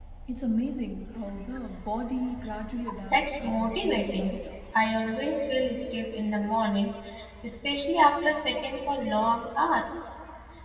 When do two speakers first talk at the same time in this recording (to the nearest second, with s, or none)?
3 s